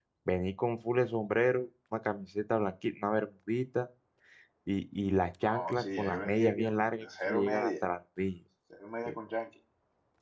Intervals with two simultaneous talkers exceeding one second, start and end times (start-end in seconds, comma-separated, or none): 5.4-7.7